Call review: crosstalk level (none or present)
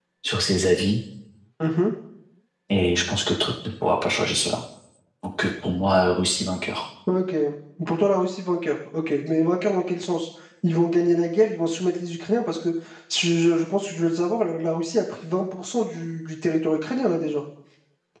none